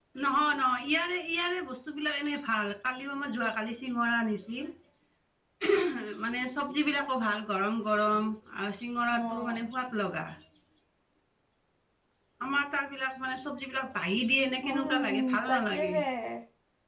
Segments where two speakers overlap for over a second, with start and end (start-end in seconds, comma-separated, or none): 14.6-15.9